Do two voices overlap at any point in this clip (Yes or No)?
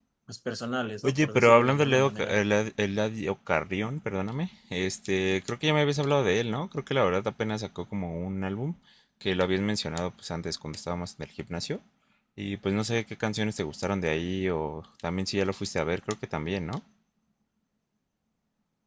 Yes